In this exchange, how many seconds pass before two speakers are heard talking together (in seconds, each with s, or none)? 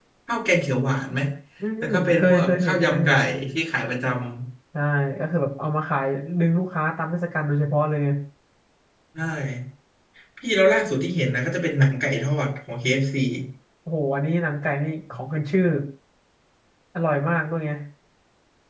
1.8 s